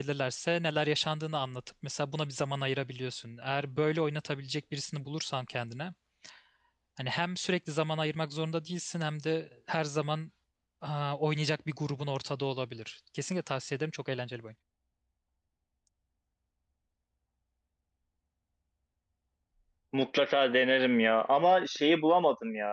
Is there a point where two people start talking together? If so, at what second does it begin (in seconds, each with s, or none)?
none